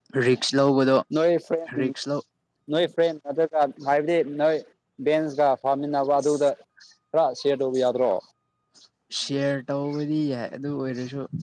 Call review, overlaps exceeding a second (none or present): none